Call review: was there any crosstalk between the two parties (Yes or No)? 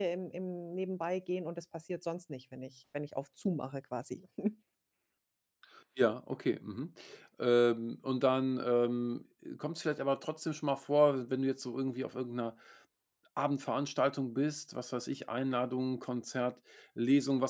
No